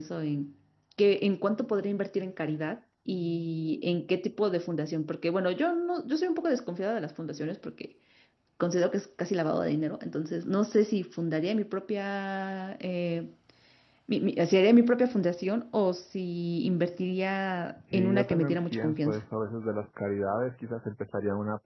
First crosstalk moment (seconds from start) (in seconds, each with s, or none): 17.7 s